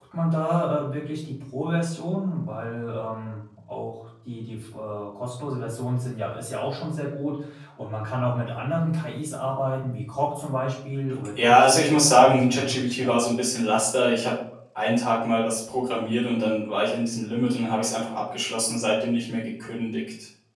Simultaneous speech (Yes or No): Yes